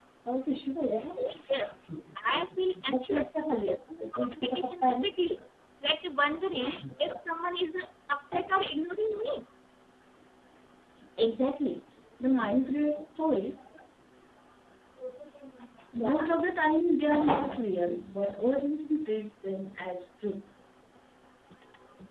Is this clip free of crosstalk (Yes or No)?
No